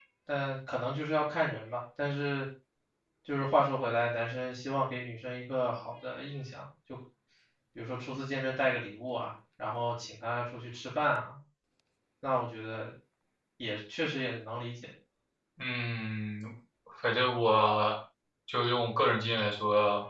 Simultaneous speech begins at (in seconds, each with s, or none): none